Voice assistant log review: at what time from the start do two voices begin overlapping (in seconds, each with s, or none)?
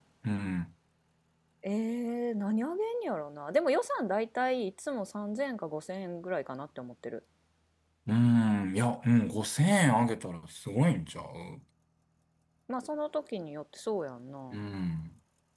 none